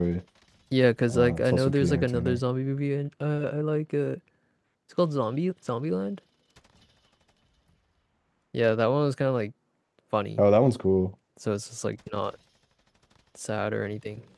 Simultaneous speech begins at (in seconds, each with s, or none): 1.1 s